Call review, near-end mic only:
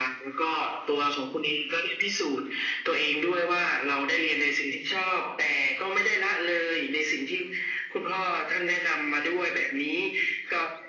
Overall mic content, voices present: echo only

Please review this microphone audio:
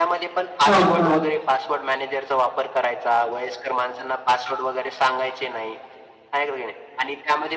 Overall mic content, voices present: both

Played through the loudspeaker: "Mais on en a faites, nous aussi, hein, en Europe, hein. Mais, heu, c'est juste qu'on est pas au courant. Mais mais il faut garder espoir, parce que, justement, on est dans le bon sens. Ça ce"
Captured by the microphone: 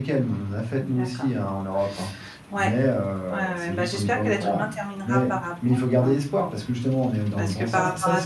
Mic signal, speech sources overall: both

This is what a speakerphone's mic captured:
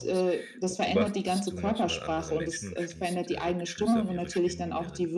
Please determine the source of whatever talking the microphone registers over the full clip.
both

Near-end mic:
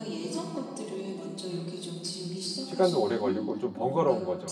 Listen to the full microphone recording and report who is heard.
both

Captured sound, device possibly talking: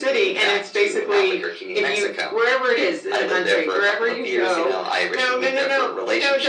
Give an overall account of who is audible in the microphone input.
echo only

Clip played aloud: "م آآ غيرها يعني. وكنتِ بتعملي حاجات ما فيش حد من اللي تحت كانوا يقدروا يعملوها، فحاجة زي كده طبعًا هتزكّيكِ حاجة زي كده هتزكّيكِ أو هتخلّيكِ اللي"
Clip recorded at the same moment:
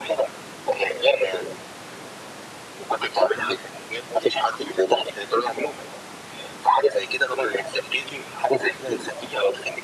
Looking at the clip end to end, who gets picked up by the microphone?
echo only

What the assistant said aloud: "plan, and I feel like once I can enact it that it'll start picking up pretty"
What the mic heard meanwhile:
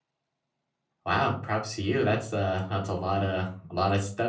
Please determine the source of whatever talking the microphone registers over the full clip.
user only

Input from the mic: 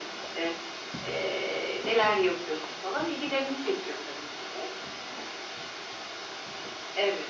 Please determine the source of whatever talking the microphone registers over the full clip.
echo only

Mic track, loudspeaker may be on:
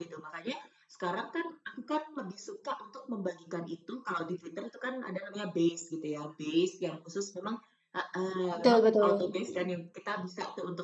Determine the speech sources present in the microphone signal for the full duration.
both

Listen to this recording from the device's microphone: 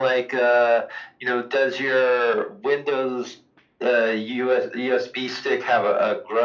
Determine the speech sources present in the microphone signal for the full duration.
echo only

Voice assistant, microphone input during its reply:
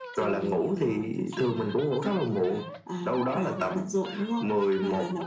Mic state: echo only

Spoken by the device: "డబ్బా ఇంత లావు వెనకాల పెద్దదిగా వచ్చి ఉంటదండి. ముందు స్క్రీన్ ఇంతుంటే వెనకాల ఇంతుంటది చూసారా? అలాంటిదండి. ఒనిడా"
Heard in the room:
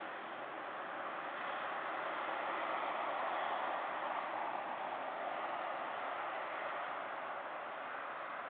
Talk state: neither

